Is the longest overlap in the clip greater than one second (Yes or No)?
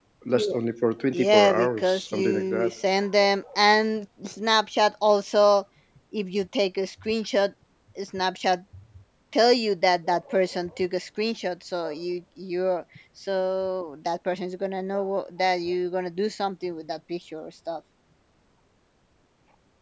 Yes